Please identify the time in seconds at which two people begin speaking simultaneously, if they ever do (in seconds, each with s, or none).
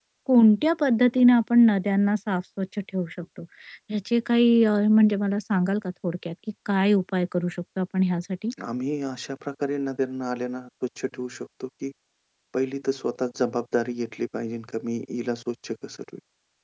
none